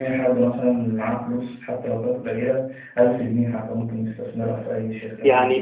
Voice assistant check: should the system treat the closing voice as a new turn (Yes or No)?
Yes